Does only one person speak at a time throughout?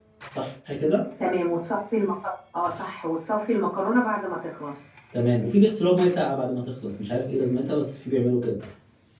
Yes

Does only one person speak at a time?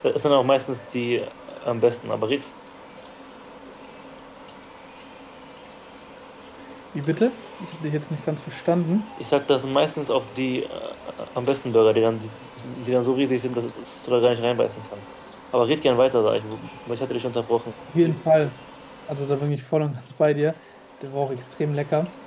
Yes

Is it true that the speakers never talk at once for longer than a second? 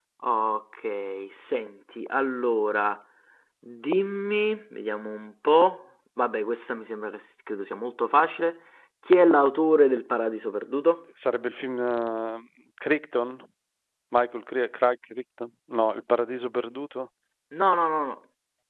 Yes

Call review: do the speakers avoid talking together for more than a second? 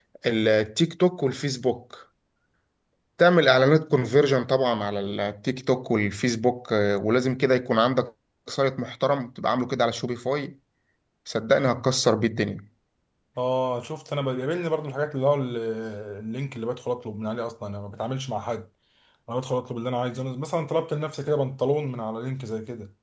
Yes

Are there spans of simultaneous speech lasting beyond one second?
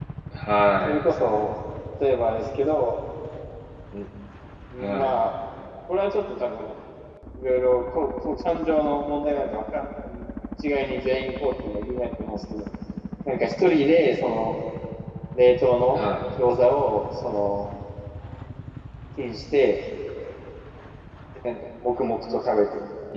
No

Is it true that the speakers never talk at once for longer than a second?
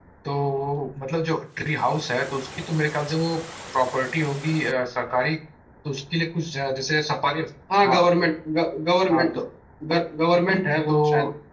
Yes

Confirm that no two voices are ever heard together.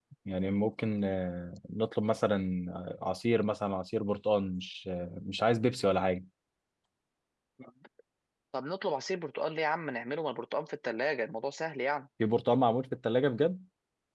Yes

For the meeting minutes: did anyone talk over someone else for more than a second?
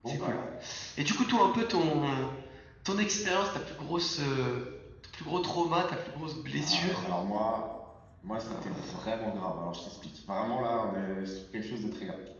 No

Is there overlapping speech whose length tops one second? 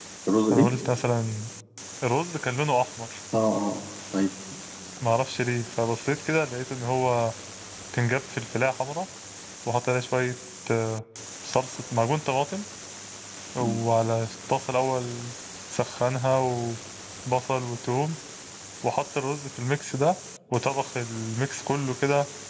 No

